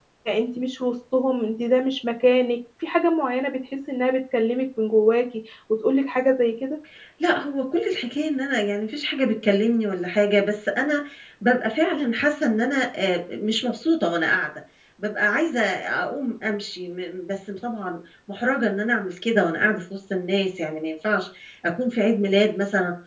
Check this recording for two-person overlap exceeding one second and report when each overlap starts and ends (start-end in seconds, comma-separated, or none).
none